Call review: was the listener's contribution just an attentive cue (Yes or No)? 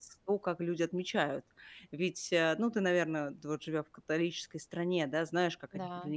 Yes